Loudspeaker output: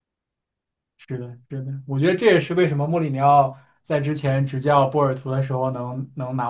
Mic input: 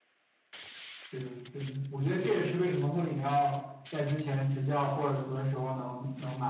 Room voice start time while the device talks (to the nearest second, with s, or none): none